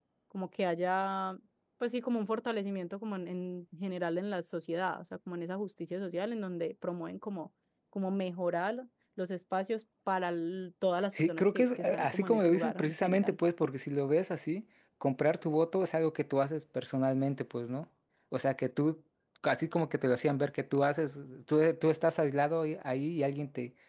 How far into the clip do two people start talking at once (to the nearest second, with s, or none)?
11 s